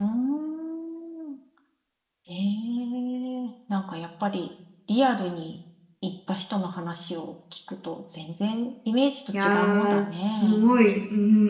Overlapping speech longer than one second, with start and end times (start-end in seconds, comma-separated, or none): 9.4-10.8